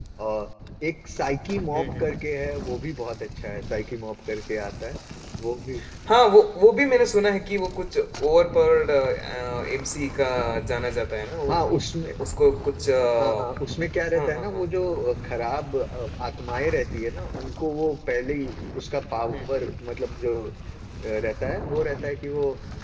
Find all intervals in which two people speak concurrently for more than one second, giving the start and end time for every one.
none

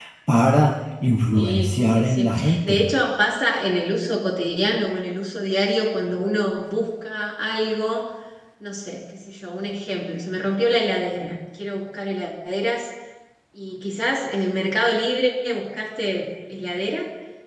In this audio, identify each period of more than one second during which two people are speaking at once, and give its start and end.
1.3-2.8

